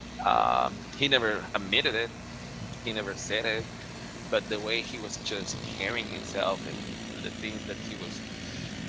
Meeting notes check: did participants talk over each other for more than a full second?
No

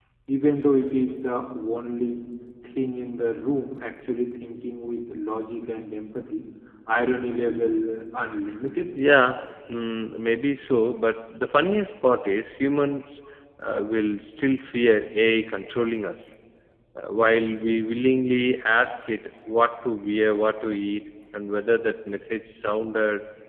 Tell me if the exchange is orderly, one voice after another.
Yes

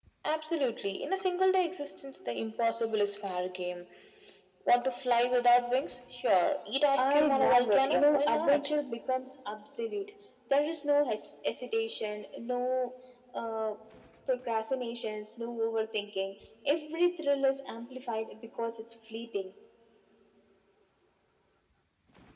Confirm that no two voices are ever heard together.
No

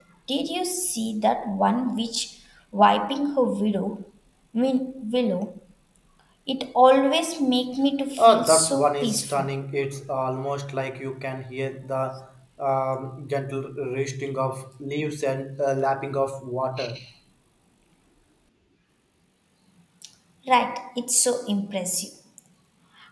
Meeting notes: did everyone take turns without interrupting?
No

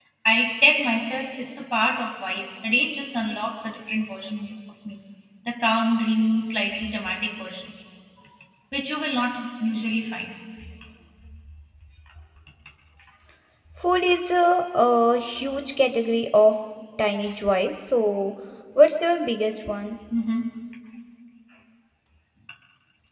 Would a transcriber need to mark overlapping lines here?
No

